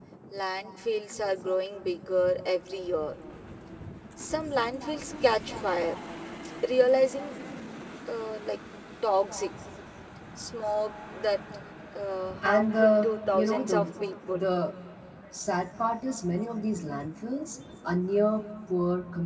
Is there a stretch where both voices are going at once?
Yes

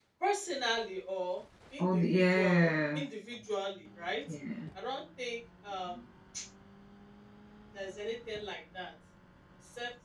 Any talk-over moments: Yes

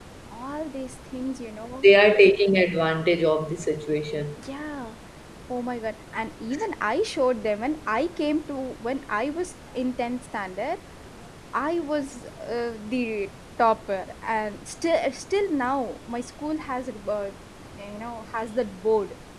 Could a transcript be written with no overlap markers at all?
Yes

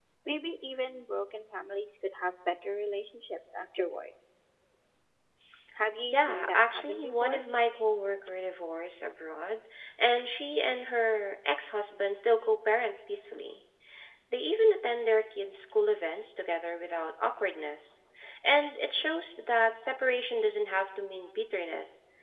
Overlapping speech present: Yes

